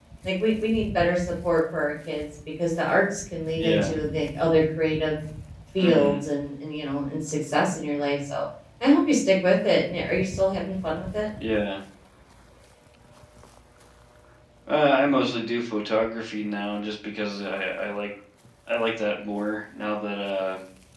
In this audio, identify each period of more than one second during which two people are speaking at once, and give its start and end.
none

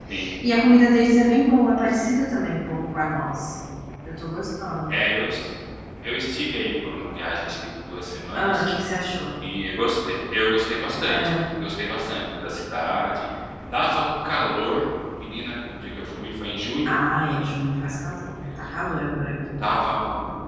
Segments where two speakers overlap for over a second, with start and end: none

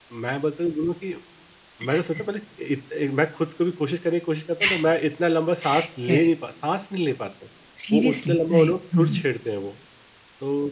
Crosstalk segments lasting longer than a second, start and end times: 7.9-9.2

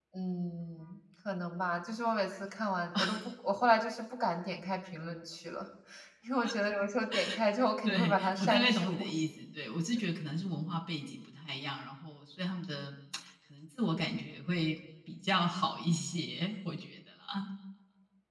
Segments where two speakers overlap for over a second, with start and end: 7.8-9.1

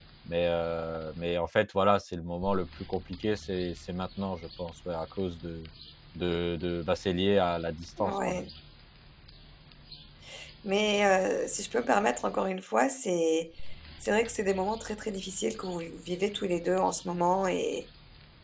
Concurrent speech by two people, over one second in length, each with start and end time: none

